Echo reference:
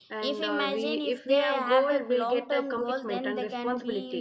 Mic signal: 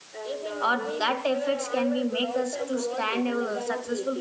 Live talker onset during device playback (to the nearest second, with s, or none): 1 s